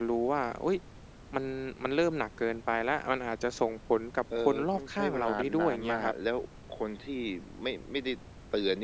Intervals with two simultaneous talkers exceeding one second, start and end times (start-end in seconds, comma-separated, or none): 4.4-6.1